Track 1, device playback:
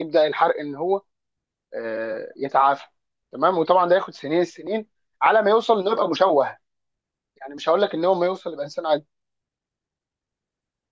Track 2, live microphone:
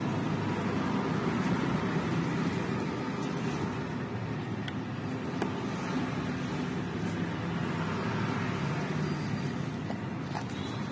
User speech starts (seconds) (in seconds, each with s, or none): none